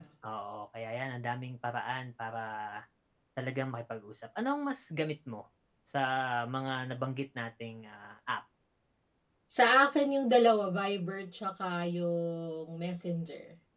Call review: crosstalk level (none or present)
none